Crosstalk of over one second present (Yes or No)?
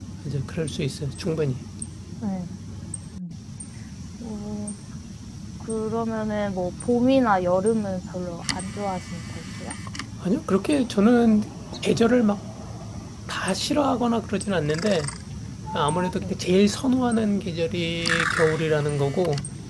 No